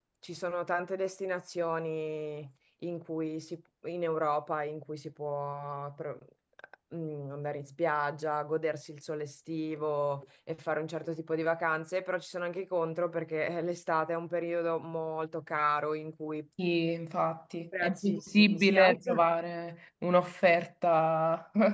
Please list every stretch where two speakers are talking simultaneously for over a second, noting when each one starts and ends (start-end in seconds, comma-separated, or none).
17.8-19.3